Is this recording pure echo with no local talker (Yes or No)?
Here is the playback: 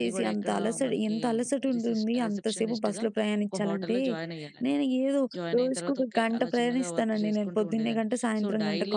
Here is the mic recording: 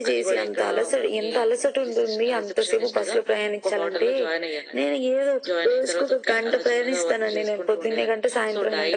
Yes